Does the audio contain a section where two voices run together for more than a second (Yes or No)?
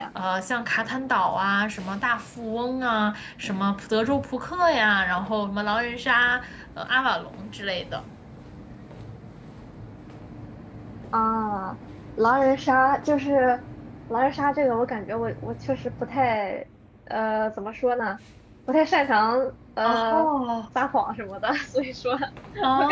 No